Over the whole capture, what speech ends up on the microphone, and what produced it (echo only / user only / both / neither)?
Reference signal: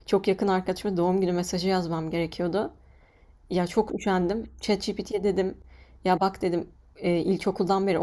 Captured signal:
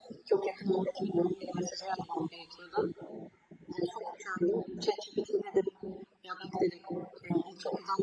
echo only